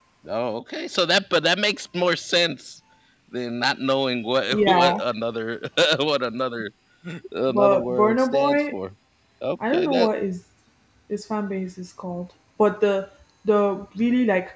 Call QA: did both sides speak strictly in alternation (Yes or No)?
No